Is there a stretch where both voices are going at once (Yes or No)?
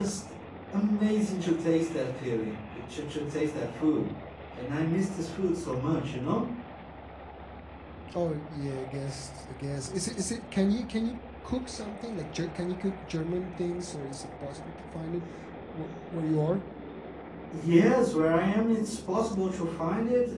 No